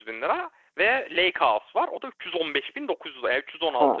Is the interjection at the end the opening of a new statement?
Yes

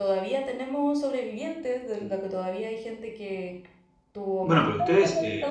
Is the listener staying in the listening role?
No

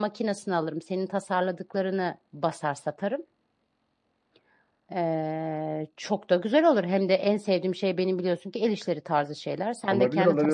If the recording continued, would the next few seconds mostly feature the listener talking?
Yes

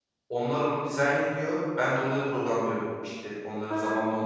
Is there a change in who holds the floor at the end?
No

